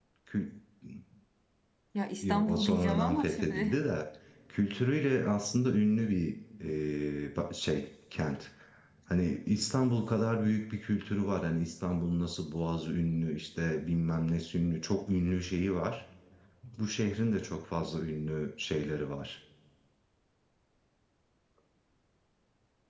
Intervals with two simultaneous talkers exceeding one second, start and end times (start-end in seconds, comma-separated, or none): 2.2-3.8